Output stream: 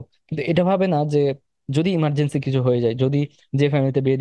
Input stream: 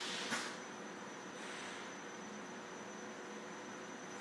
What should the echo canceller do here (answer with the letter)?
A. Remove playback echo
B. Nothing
B